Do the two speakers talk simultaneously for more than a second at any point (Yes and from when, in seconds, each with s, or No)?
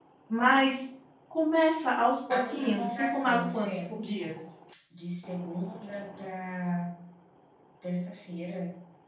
Yes, from 2.3 s